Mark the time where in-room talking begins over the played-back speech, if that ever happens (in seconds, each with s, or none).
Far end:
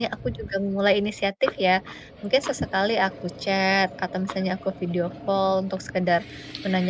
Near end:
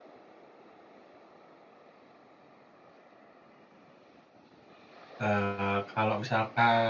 5.2 s